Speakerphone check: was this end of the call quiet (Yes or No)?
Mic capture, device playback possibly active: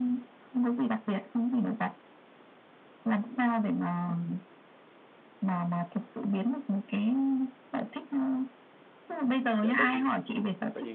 No